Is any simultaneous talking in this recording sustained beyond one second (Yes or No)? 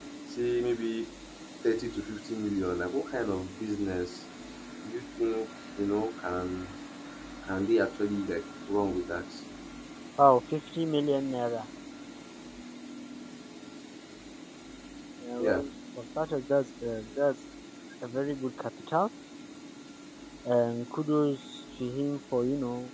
No